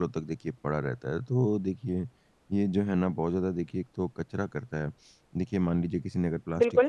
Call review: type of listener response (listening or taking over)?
listening